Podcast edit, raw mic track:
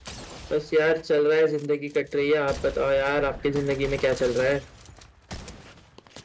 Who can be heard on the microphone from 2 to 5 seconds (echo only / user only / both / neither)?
echo only